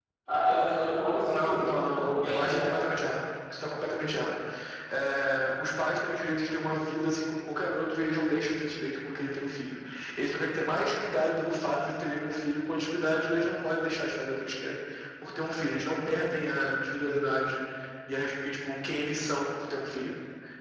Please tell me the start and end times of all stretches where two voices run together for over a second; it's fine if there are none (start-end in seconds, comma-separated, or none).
1.3-2.7